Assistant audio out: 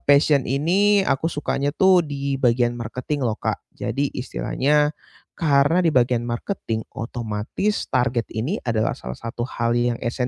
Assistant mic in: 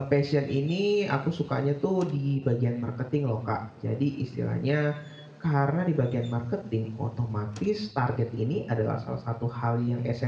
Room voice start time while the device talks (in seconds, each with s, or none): none